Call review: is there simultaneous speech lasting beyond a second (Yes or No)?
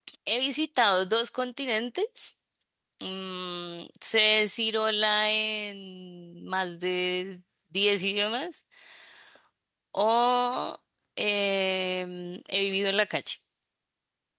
No